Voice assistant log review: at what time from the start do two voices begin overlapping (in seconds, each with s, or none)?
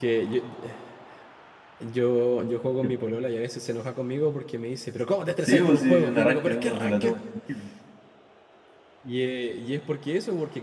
5.4 s